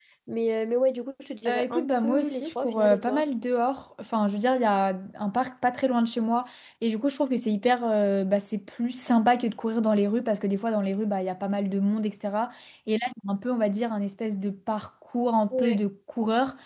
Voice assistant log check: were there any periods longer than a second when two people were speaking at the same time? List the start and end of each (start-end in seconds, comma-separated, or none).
1.5-3.3